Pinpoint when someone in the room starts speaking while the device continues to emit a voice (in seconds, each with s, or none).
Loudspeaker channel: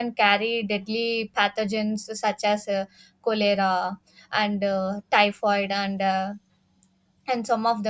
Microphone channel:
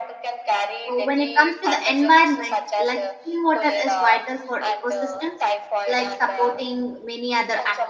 0.9 s